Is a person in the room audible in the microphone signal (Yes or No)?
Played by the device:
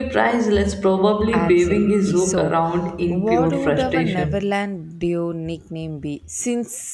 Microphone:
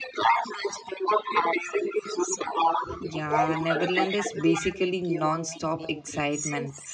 Yes